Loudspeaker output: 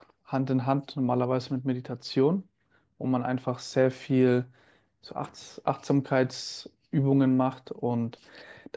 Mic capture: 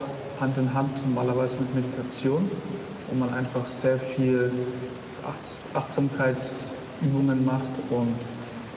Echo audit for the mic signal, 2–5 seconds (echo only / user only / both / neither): echo only